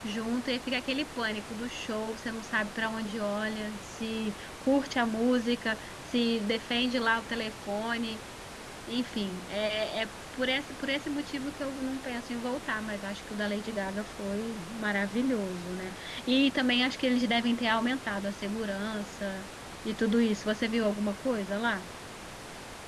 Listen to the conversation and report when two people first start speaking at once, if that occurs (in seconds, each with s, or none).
none